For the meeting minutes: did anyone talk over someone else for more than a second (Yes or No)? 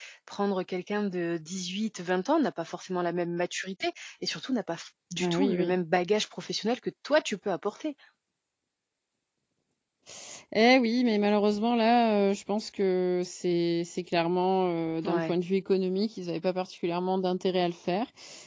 No